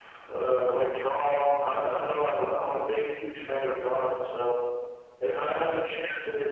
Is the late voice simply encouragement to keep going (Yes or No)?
Yes